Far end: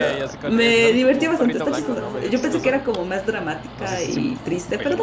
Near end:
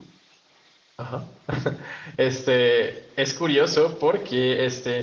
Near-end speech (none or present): present